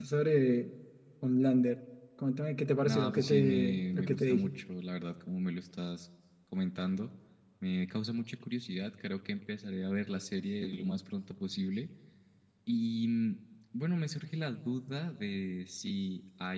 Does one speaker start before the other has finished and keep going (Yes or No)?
Yes